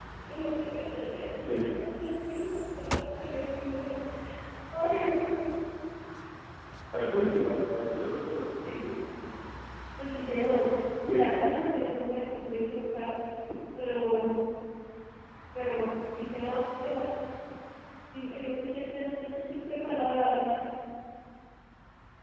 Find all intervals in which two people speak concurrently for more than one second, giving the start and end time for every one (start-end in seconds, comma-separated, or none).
none